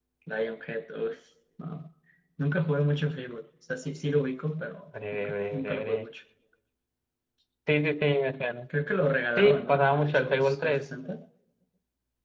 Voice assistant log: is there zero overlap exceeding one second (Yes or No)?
No